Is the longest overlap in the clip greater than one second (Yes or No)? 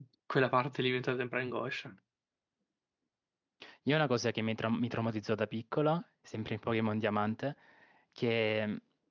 No